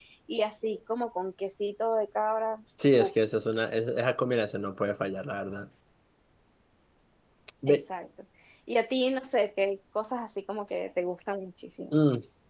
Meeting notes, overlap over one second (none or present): none